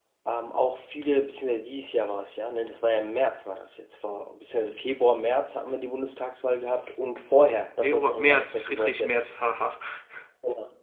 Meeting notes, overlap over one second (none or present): present